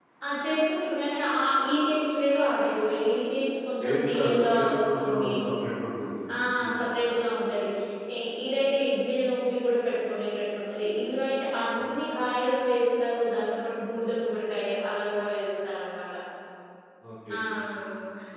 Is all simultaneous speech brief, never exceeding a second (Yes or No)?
No